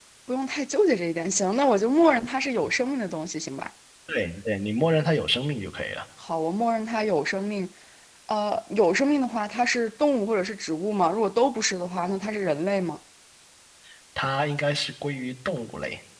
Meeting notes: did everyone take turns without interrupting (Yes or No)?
Yes